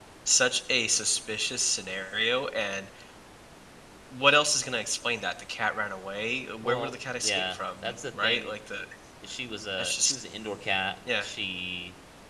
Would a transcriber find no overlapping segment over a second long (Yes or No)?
No